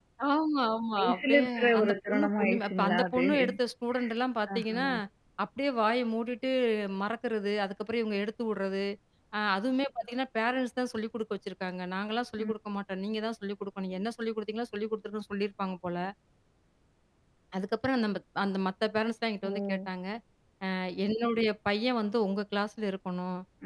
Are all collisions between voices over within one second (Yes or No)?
No